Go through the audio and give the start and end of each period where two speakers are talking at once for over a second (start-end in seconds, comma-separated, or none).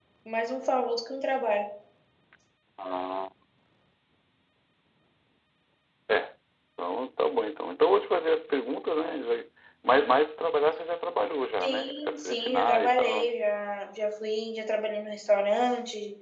11.6-13.3